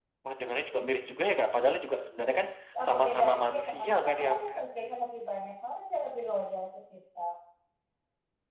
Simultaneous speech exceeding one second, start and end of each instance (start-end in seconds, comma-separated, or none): 2.8-4.6